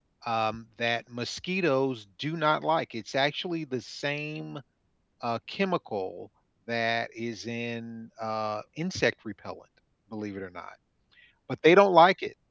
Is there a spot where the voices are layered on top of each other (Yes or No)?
No